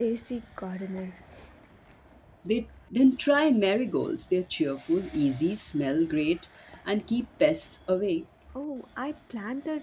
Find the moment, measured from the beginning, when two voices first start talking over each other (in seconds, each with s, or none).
none